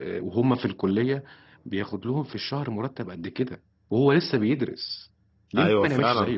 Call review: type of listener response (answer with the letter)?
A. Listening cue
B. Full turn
B